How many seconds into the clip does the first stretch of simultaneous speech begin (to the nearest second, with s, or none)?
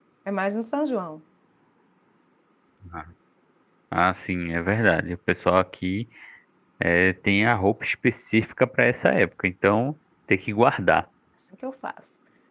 none